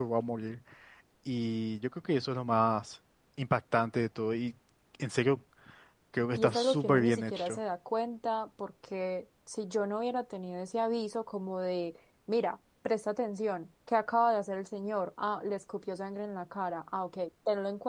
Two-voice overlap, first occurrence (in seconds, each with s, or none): 6.4 s